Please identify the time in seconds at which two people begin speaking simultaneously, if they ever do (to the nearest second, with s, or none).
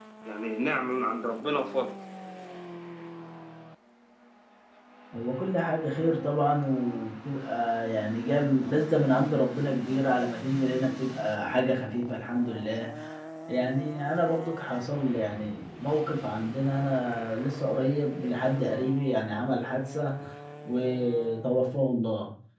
none